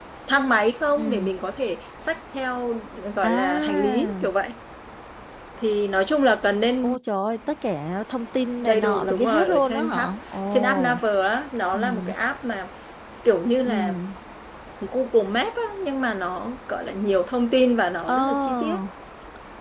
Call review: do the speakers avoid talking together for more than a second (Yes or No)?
No